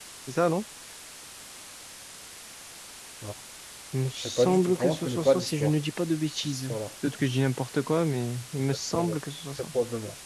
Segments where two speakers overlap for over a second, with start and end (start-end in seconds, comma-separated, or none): 4.2-5.7